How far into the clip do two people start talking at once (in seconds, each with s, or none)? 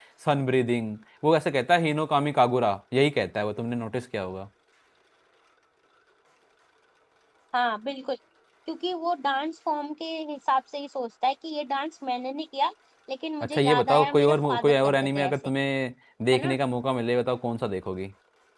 13.4 s